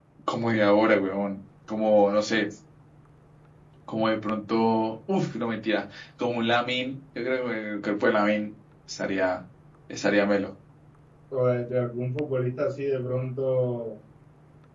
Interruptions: none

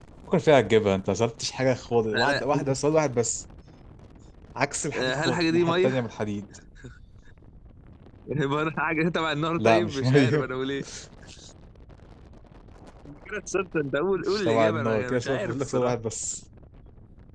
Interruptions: present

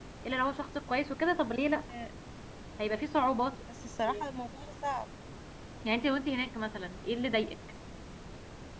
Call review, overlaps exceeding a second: none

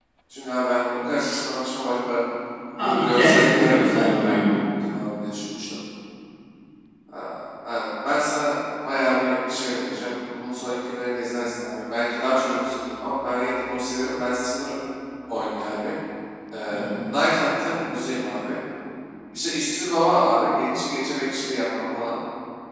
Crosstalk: present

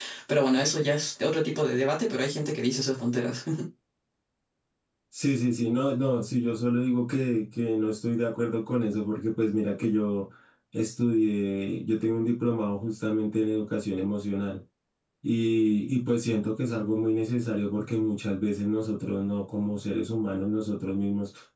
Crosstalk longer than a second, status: none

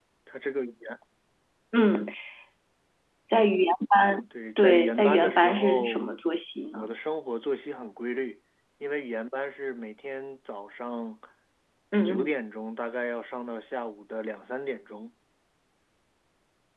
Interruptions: present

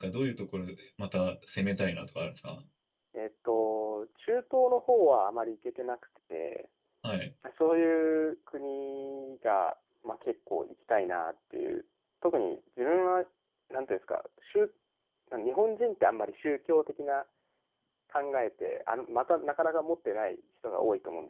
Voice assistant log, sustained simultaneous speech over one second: none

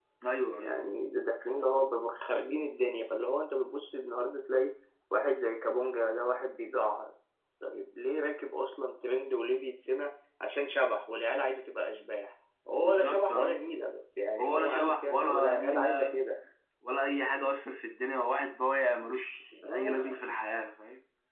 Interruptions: present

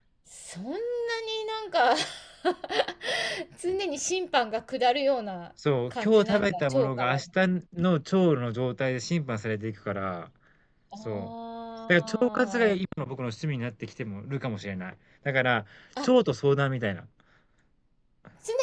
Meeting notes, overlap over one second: present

